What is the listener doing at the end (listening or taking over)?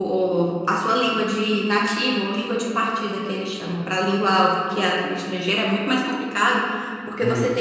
listening